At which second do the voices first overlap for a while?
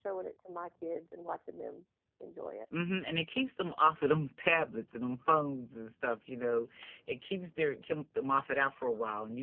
none

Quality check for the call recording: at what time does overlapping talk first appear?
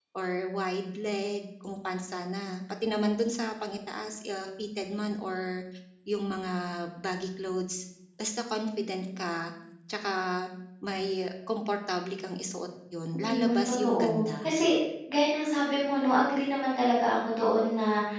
13 s

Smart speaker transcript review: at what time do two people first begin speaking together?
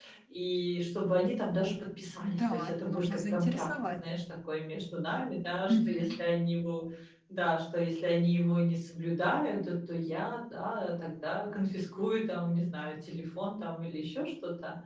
2 s

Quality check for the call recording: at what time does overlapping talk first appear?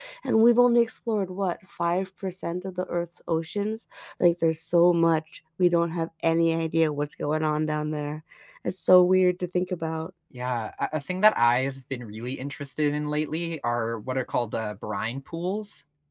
none

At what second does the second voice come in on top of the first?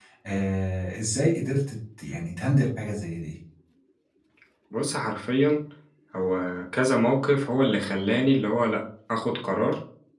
none

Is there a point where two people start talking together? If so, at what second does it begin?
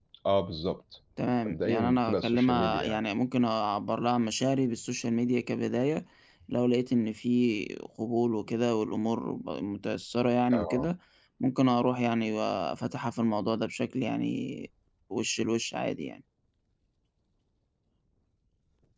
2 s

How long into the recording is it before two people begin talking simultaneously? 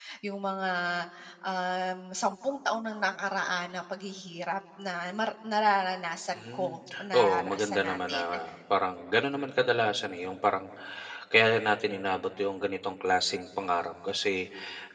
6 s

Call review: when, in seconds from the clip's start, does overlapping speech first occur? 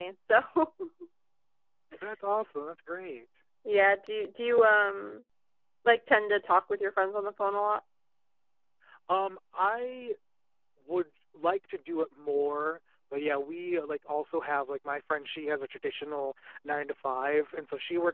none

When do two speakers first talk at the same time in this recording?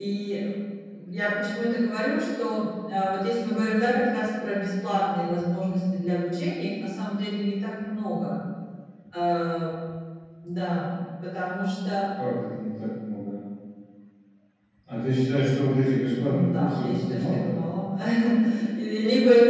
16 s

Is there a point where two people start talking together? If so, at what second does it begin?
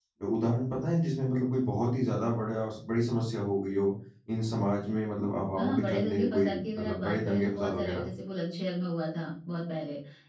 6 s

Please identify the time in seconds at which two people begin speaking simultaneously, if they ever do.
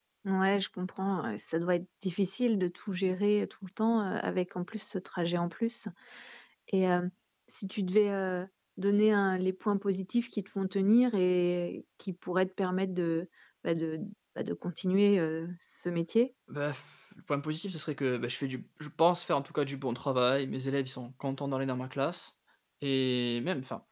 none

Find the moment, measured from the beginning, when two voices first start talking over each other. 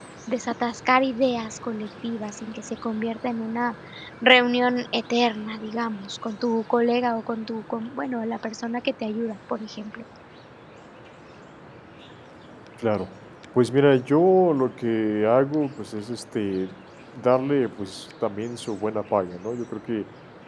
none

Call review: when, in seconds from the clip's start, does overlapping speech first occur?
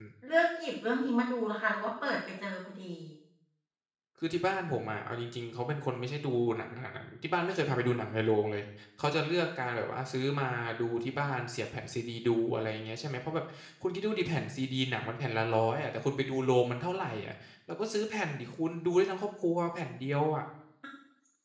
none

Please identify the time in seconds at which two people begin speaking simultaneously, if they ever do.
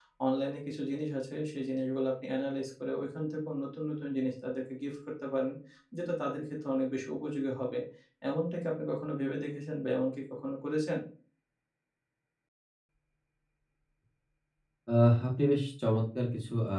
none

